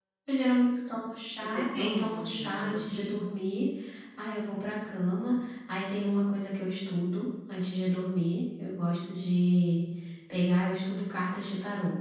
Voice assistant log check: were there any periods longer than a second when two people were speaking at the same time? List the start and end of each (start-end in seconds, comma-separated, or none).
1.4-3.1